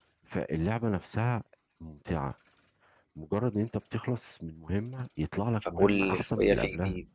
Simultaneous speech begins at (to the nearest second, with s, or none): 6 s